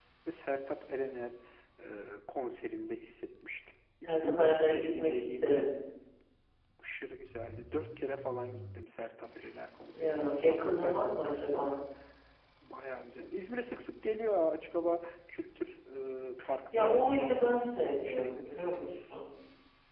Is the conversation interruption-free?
No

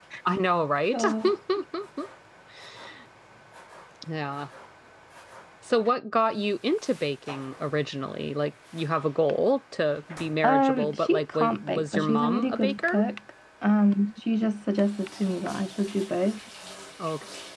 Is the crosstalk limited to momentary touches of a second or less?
No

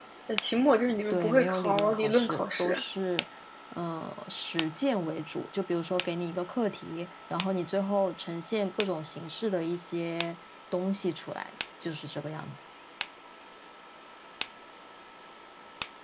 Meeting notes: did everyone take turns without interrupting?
No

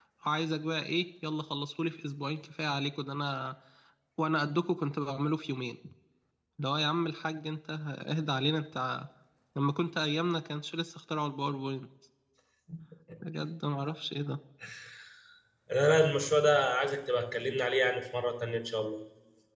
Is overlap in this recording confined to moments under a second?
Yes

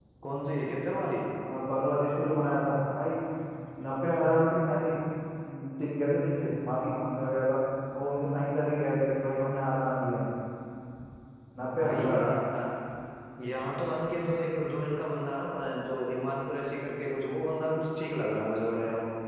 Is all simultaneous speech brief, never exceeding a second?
Yes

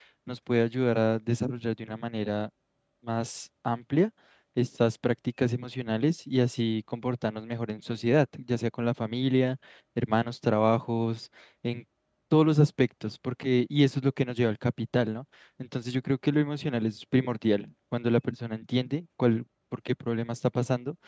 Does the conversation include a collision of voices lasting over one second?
No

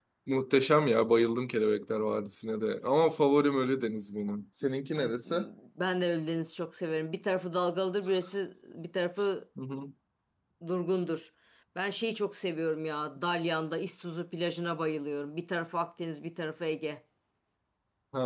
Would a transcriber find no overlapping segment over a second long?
Yes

